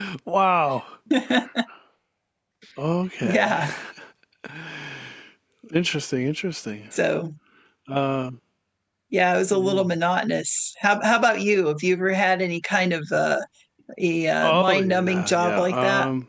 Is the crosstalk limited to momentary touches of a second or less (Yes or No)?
No